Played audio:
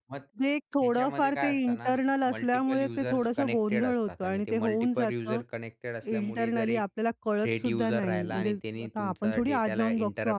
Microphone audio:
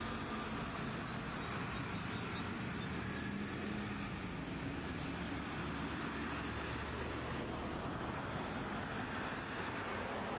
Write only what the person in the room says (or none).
none